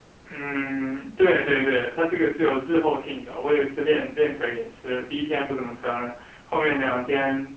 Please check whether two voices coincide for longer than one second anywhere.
No

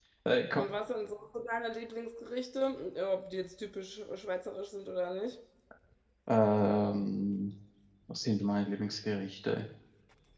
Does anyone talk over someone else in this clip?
No

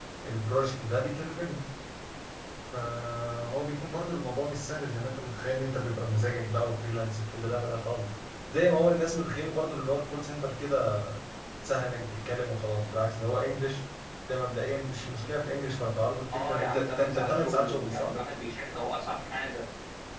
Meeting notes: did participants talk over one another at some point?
Yes, from 16.3 s

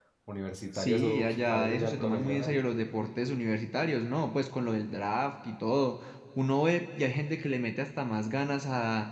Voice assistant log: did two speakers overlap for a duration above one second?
Yes, from 0.7 s

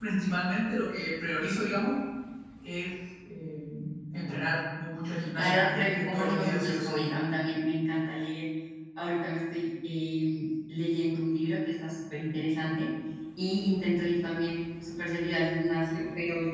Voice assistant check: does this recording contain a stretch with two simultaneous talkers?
Yes, from 5.4 s

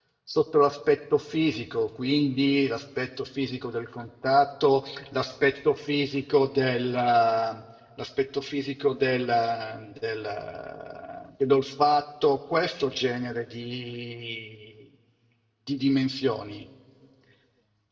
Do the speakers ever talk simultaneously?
No

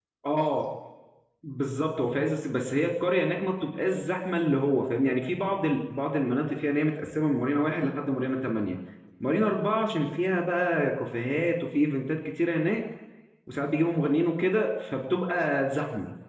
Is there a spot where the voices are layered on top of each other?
No

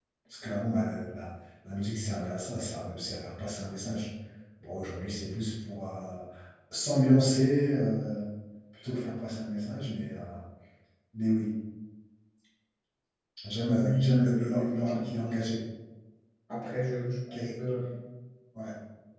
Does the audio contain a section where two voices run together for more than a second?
Yes, from 13.6 s

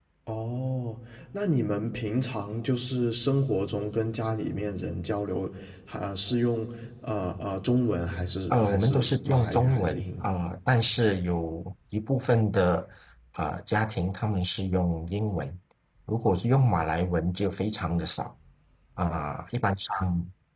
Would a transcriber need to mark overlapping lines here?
Yes, from 8.5 s

